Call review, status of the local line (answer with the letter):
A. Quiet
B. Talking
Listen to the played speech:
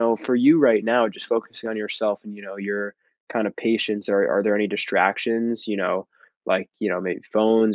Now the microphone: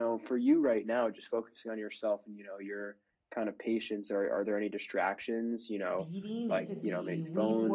B